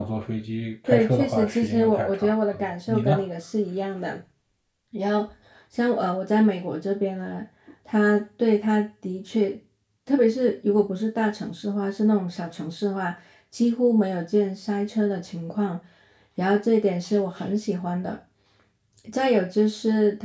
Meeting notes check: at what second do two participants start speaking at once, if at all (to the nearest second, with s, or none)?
1 s